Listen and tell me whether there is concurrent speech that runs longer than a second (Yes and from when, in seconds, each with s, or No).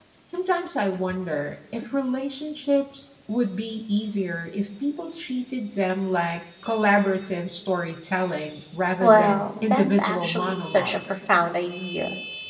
Yes, from 9.0 s